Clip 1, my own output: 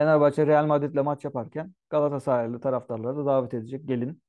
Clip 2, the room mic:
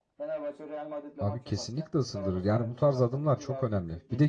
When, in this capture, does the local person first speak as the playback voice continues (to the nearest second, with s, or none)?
1 s